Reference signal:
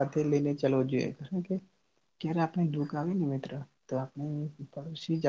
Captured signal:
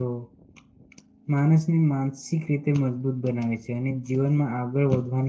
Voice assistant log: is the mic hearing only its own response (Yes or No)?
No